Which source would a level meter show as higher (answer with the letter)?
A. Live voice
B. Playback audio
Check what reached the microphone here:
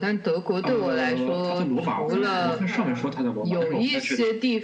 B